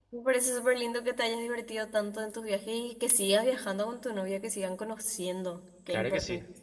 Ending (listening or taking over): taking over